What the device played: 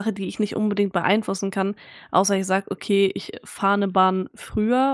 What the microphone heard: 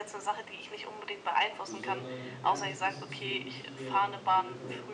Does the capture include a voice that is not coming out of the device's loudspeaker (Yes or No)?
Yes